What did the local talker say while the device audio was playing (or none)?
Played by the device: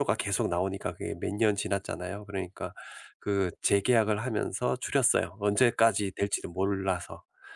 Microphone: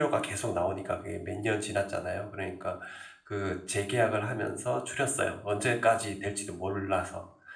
none